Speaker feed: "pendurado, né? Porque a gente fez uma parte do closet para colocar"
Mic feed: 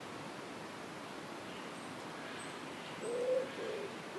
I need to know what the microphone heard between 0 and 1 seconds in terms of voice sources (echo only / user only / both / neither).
neither